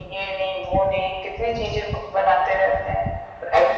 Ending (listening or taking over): taking over